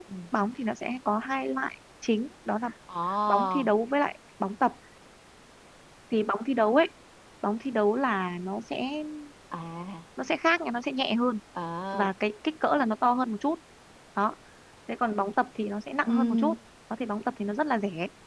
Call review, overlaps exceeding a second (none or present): none